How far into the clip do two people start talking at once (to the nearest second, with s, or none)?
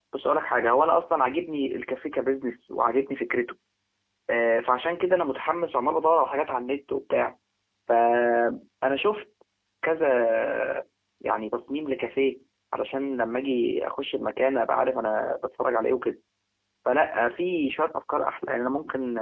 none